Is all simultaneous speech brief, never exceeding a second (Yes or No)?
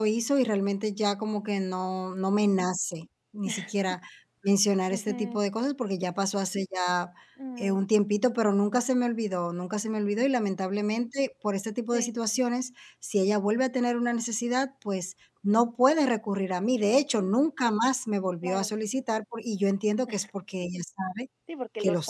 Yes